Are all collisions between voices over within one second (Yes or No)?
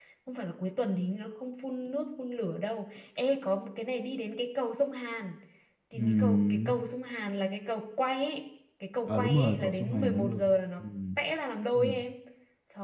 No